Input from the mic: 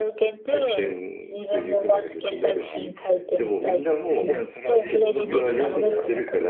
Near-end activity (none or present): present